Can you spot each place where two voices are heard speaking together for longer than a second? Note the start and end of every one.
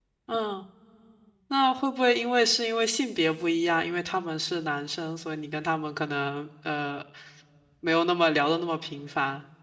none

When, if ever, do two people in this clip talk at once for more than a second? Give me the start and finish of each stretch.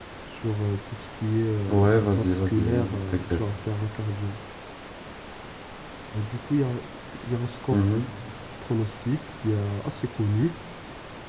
1.7-3.4

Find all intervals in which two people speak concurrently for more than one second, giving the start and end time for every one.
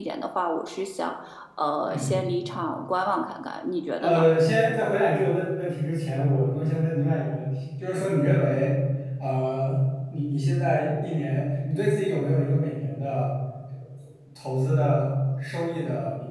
none

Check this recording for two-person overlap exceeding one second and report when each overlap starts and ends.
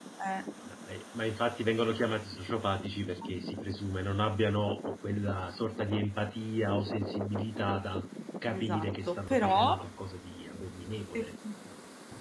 8.5-9.8

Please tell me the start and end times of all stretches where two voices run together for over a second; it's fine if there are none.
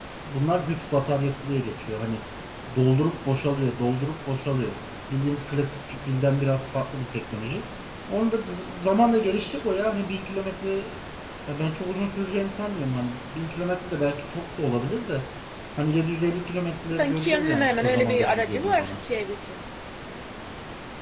16.9-19.0

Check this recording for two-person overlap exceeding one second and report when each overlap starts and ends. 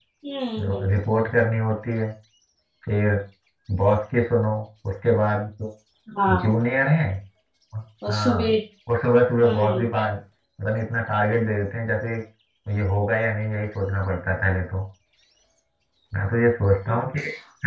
none

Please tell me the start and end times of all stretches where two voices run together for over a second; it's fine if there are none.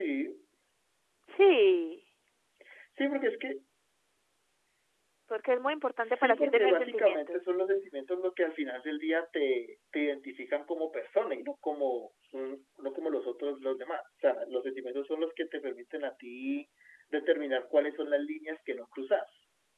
6.0-7.4

